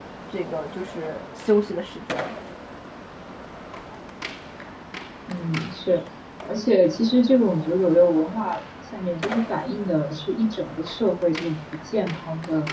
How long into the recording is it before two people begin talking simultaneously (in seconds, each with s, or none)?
none